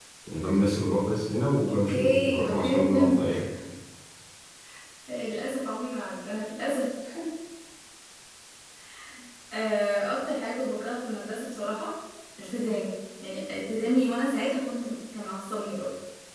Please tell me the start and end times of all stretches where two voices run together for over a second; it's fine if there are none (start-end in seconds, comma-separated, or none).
1.7-3.3